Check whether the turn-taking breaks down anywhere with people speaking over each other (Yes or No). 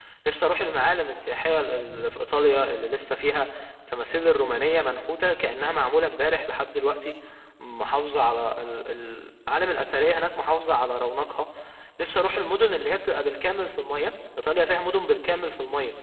No